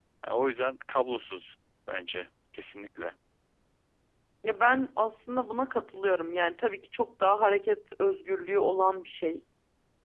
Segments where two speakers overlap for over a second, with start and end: none

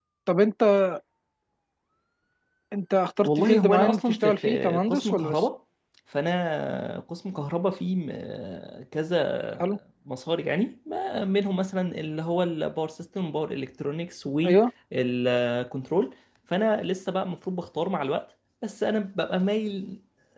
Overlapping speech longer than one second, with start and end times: 3.2-5.4

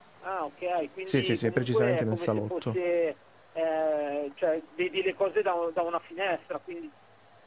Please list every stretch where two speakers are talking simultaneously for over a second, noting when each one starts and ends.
1.1-2.8

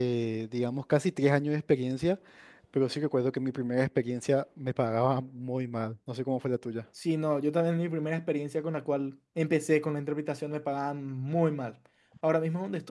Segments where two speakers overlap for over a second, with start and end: none

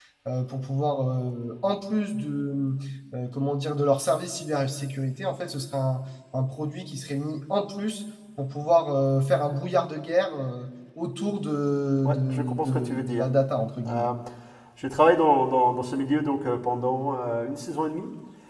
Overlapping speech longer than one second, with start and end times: 12.0-13.3

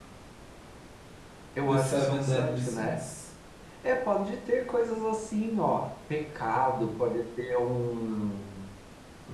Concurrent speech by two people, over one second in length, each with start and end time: 1.6-3.0

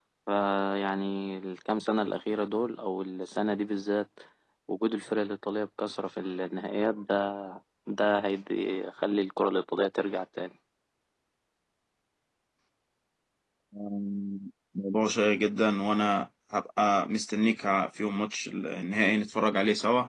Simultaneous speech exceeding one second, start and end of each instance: none

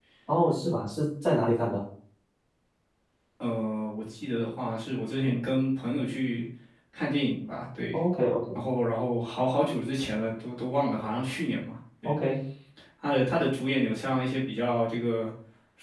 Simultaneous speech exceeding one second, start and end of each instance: none

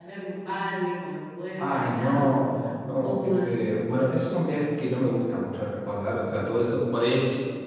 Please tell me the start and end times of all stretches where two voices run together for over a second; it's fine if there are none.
1.6-3.4

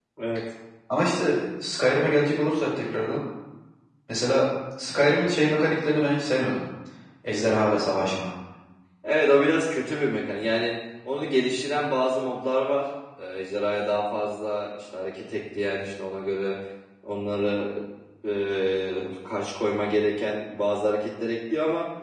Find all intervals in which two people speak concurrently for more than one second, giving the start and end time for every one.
none

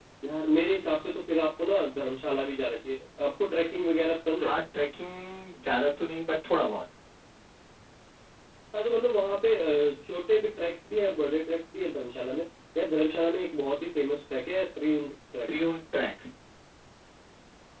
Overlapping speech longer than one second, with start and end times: none

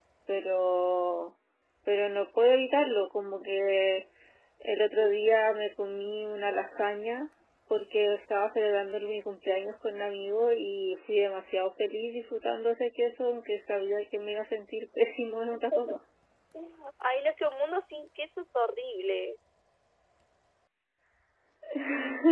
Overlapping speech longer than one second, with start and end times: none

